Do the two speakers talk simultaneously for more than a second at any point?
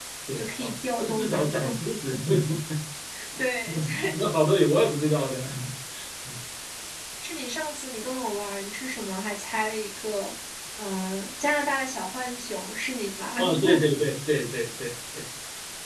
Yes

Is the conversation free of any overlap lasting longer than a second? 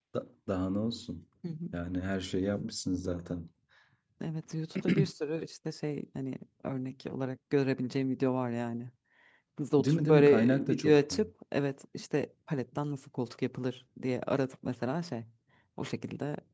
No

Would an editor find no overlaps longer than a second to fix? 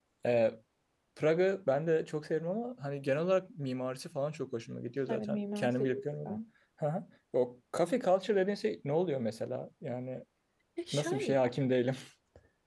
No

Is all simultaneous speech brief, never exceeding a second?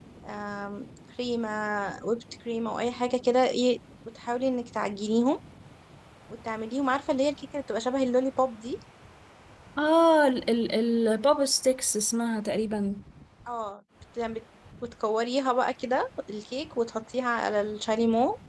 Yes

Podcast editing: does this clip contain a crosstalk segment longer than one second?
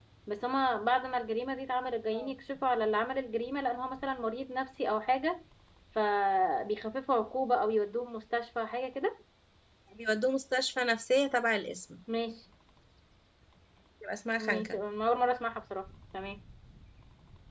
No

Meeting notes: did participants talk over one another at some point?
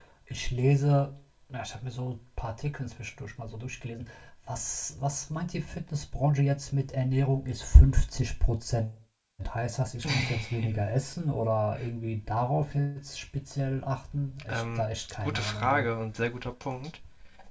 Yes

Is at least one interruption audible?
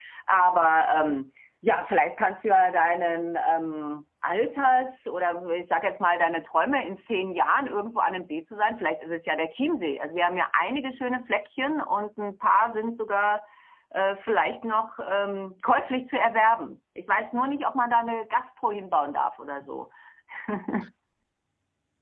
No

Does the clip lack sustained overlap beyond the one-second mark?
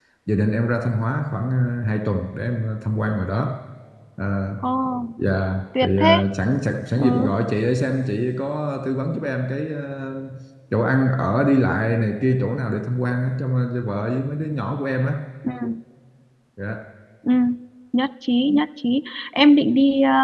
Yes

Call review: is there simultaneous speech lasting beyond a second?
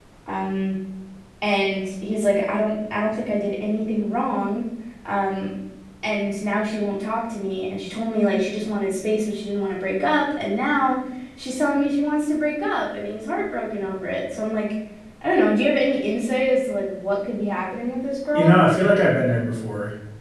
No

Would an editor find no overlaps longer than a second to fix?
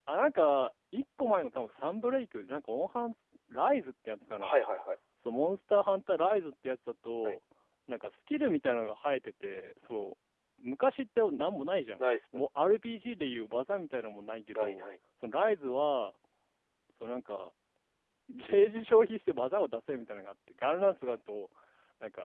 Yes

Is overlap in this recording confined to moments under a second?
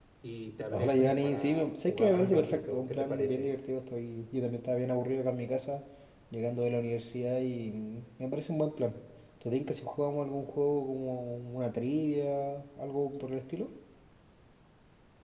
No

